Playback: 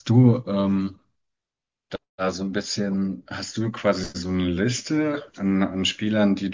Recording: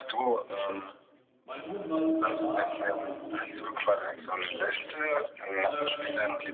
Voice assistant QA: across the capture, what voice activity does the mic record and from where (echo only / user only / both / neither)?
both